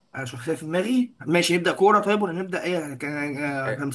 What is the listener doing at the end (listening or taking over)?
taking over